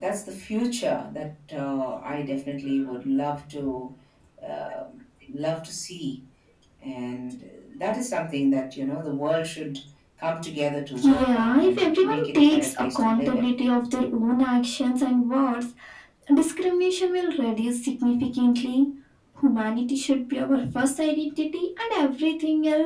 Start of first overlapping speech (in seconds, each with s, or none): 11.0 s